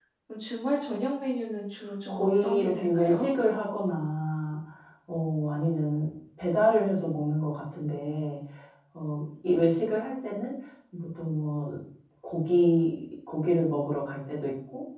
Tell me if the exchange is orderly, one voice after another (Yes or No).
No